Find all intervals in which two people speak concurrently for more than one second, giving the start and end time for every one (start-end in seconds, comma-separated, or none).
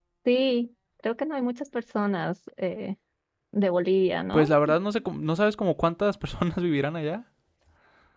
none